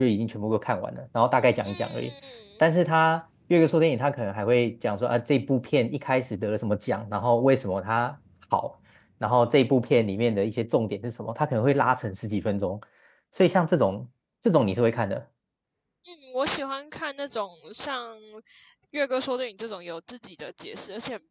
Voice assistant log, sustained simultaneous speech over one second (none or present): none